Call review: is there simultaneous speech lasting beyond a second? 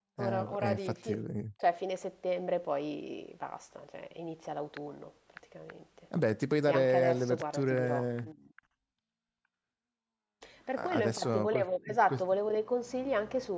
Yes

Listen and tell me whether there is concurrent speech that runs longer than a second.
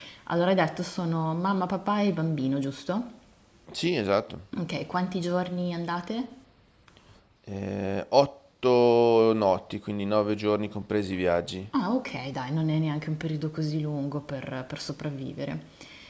No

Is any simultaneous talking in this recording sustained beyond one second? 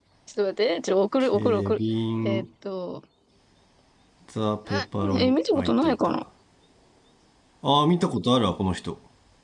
Yes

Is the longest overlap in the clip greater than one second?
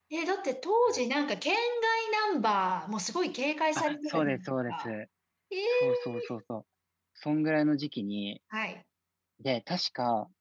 Yes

